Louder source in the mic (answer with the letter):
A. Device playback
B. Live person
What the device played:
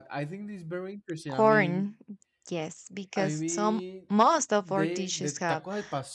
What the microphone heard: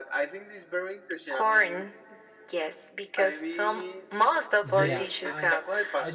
A